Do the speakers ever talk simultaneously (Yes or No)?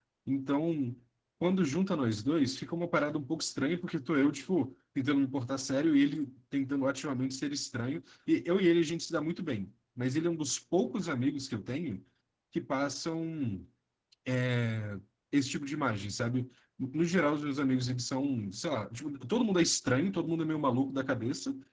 No